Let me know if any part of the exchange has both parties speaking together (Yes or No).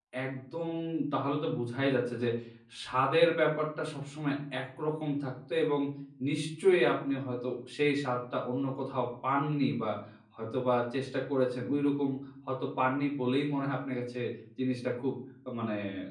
No